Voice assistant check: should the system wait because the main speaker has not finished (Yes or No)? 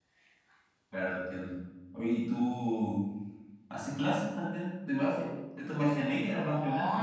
No